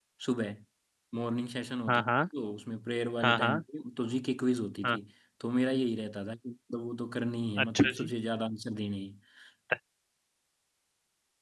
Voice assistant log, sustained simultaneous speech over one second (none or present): none